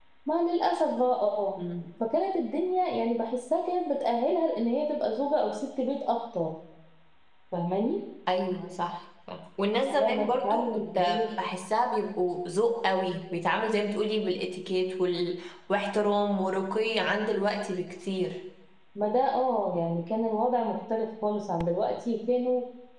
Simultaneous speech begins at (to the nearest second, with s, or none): 10 s